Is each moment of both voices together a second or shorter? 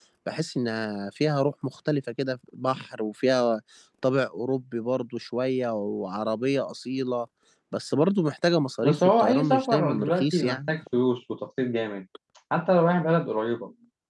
No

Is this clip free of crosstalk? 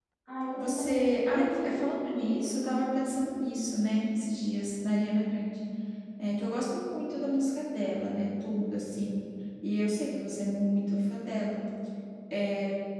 No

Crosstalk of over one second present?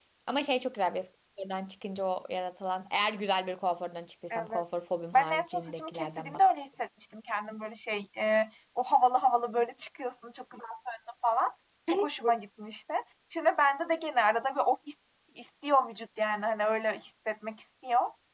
Yes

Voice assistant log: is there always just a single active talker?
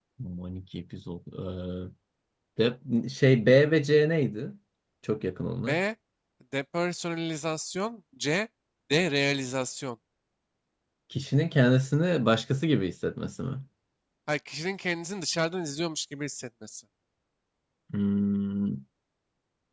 Yes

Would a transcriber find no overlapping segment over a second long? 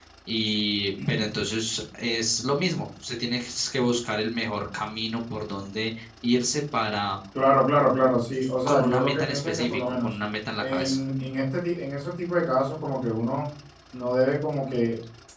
No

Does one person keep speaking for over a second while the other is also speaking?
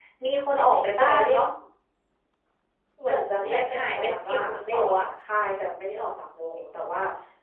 Yes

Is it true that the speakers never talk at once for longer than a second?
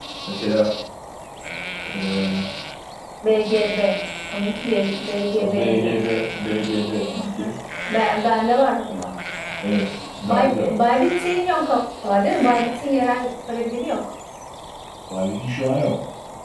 Yes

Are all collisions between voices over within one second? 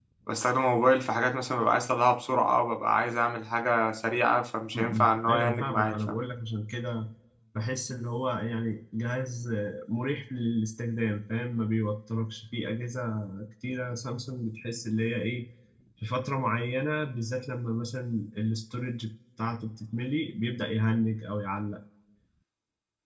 No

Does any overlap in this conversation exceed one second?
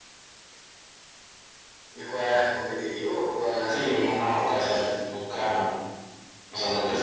Yes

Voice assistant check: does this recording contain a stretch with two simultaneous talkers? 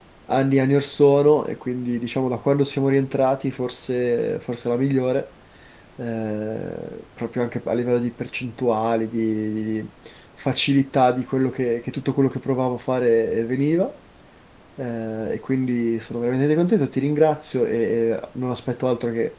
No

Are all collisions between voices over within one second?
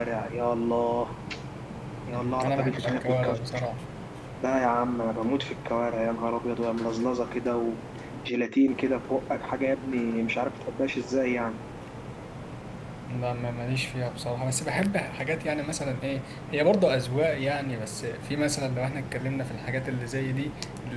No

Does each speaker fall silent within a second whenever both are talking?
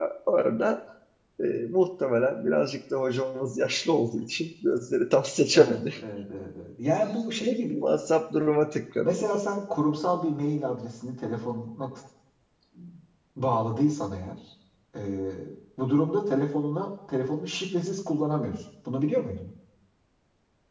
Yes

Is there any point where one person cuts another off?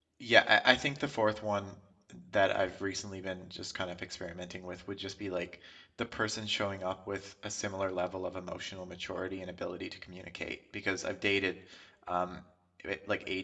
No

